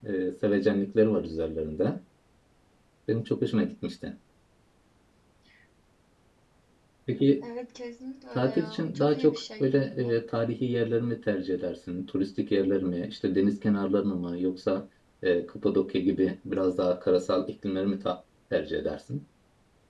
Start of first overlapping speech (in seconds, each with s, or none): 8.3 s